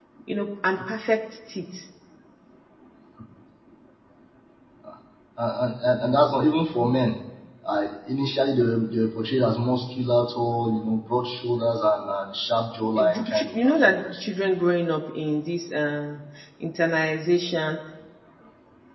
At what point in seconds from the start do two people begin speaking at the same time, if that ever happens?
13 s

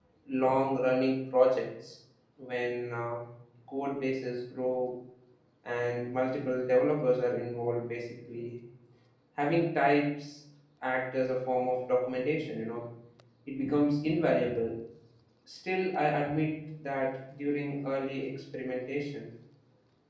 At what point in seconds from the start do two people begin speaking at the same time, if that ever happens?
none

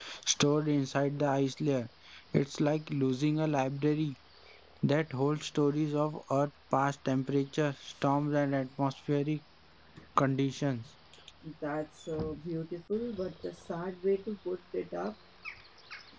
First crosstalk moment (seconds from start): none

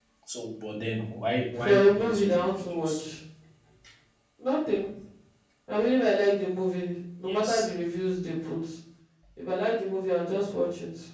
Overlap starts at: 2 s

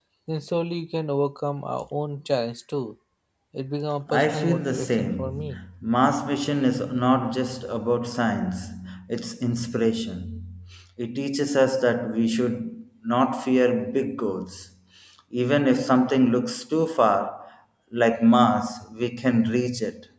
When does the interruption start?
4 s

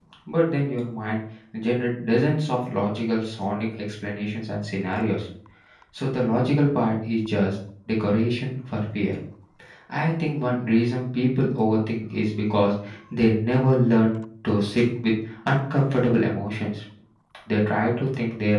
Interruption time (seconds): none

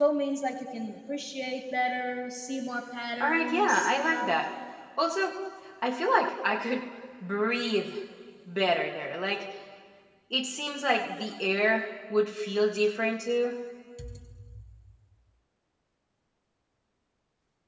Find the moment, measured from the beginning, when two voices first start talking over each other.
3 s

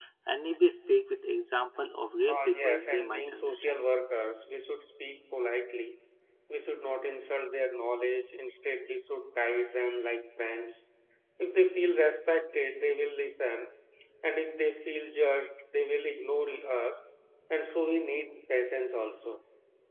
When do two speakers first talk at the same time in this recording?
2 s

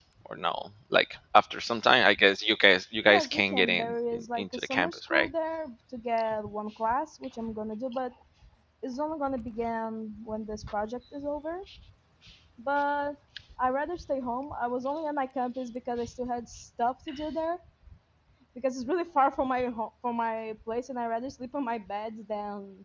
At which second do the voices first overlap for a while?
3 s

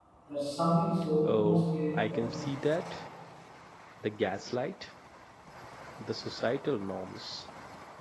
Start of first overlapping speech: 1 s

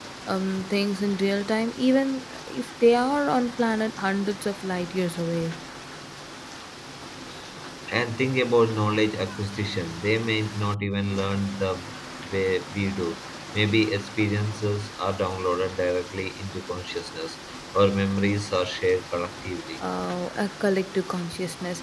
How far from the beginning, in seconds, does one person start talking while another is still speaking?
none

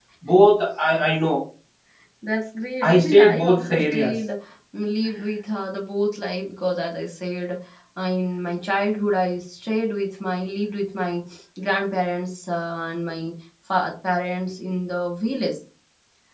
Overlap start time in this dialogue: 3 s

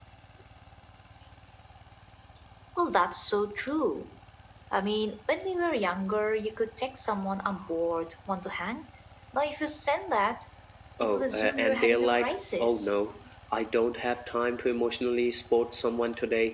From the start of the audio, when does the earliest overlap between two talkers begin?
11 s

